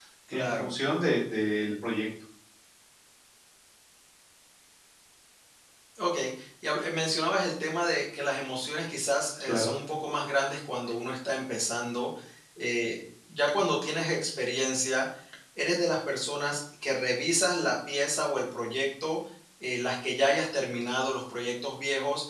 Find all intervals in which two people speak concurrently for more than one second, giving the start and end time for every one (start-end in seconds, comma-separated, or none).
none